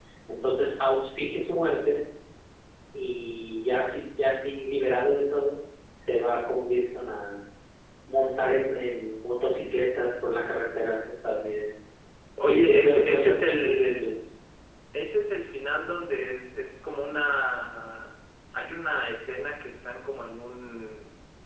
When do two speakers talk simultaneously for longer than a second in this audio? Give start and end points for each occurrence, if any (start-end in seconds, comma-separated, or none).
12.4-14.2